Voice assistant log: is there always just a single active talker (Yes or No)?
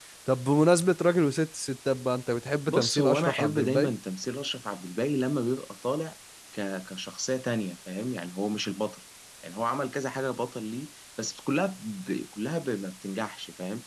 No